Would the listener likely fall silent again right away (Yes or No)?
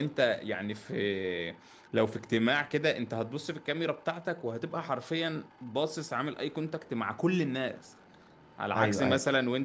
Yes